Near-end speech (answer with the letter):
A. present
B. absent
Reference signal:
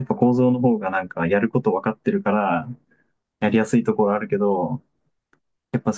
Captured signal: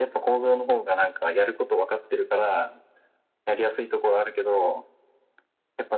B